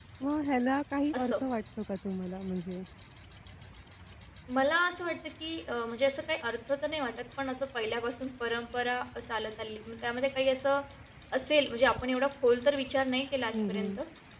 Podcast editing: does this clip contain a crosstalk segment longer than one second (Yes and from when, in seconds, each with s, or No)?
No